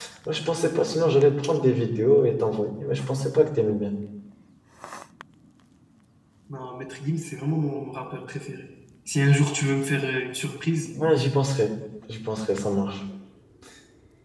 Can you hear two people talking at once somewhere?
No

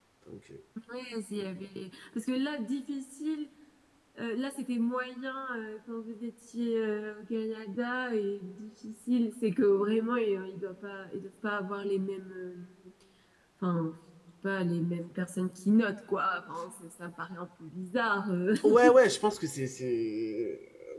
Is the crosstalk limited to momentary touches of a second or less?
Yes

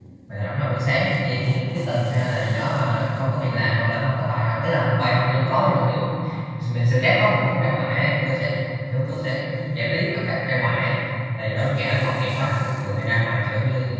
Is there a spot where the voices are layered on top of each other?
No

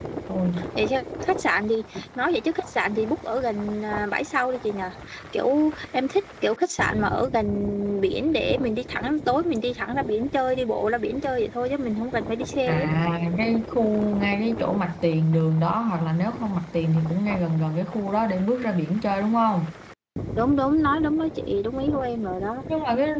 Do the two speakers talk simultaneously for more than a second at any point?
No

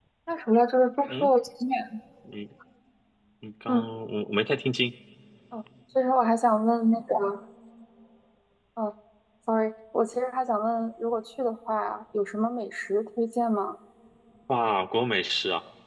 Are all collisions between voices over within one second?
Yes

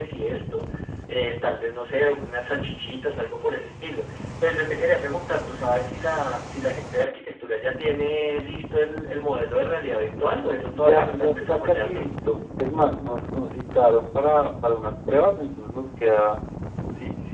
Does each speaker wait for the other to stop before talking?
No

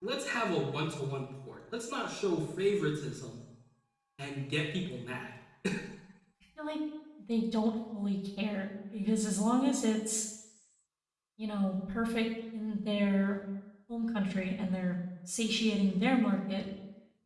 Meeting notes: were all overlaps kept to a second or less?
Yes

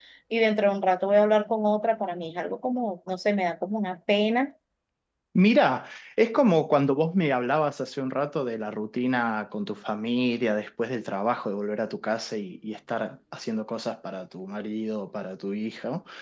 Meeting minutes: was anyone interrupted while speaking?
No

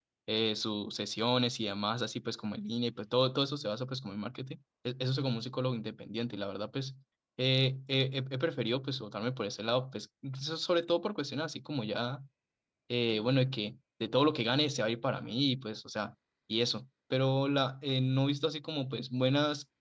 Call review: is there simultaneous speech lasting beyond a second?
No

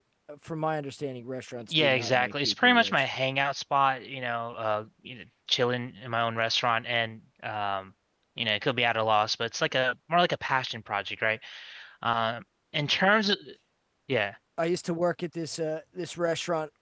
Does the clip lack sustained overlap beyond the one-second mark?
No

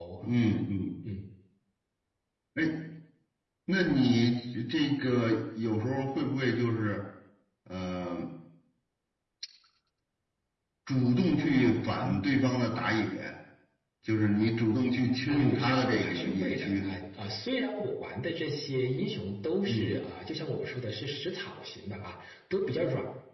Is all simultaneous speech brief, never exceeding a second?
No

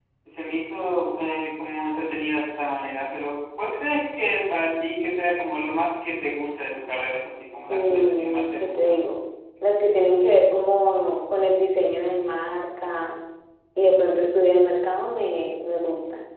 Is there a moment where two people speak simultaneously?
Yes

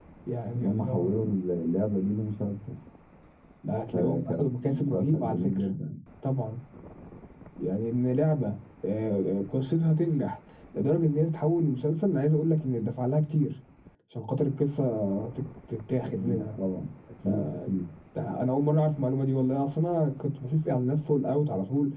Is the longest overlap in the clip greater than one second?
Yes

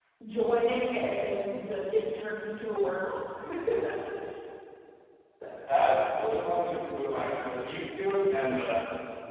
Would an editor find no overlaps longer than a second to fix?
Yes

